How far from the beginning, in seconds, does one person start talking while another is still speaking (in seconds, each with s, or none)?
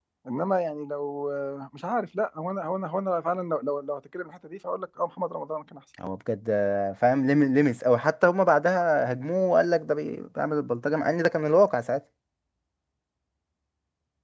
none